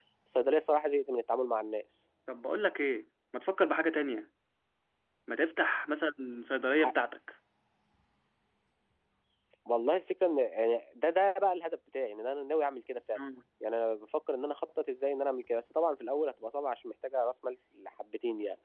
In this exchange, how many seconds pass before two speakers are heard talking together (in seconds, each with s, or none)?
none